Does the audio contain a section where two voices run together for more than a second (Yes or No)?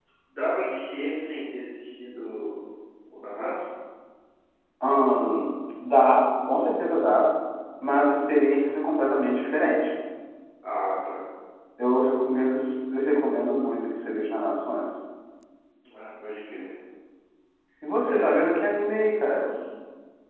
Yes